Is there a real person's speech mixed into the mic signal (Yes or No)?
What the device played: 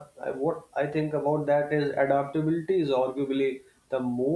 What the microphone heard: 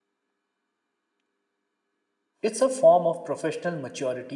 Yes